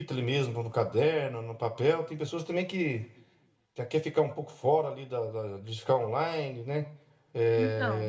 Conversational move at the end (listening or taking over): listening